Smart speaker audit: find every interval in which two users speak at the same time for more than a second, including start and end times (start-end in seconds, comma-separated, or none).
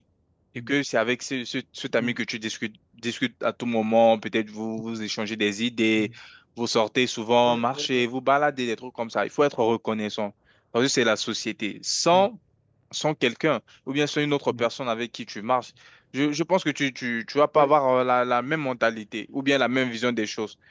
none